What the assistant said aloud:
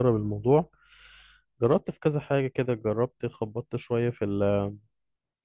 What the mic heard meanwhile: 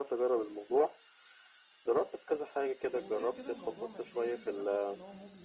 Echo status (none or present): present